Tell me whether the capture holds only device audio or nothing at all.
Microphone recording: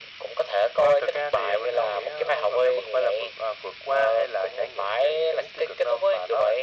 Yes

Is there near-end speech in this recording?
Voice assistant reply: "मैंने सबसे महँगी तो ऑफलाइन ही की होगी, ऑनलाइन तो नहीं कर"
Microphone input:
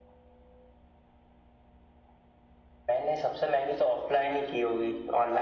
No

